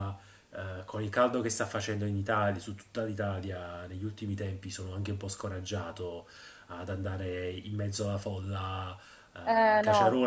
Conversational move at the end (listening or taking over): listening